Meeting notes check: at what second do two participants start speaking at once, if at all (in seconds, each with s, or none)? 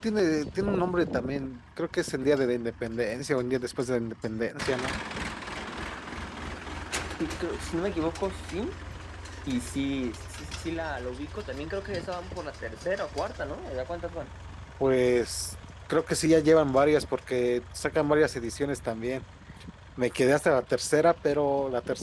none